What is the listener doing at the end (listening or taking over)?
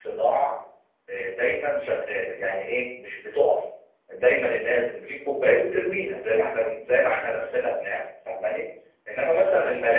listening